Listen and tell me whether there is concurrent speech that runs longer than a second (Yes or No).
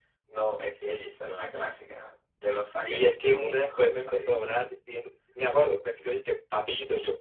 Yes